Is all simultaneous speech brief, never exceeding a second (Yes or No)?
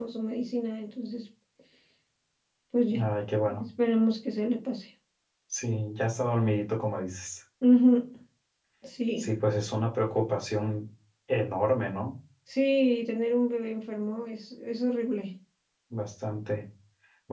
Yes